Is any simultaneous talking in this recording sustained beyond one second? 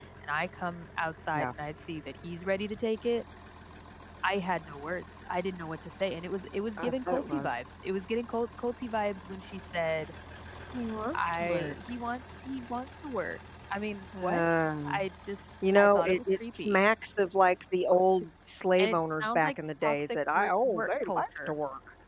Yes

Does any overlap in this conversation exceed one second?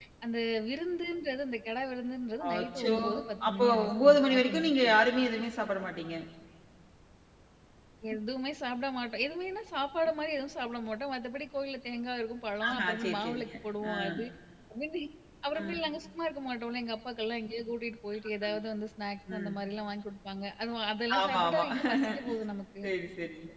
Yes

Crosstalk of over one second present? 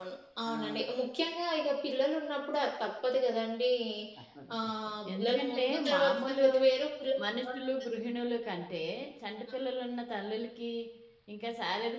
Yes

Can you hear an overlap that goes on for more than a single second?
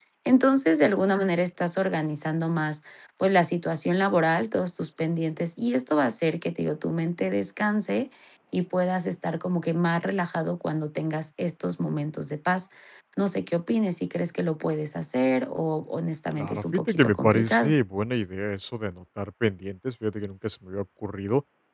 Yes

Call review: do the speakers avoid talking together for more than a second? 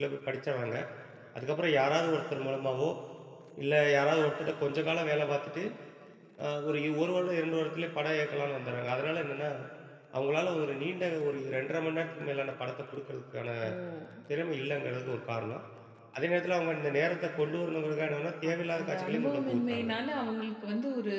No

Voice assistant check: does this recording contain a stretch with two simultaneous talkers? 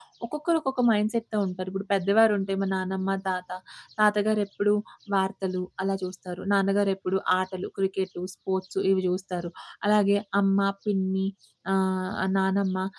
No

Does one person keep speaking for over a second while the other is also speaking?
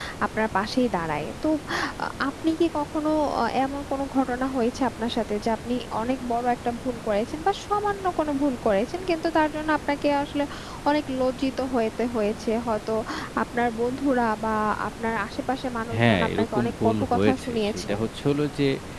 Yes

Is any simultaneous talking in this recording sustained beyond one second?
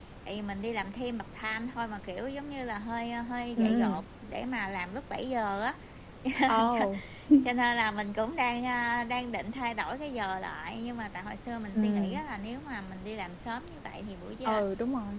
No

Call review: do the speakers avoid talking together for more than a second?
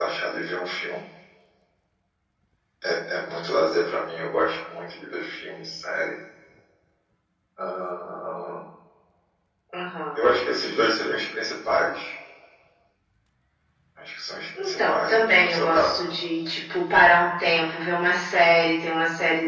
No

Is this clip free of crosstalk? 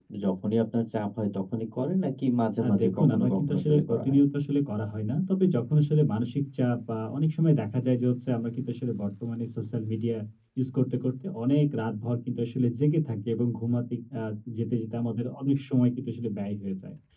No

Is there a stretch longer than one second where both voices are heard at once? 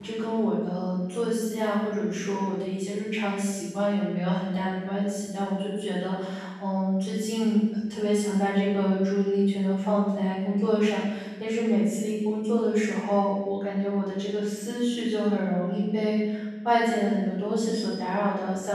No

